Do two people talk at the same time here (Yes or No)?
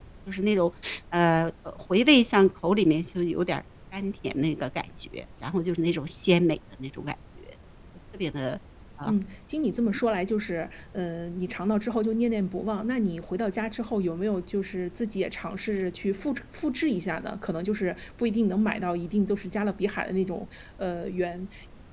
No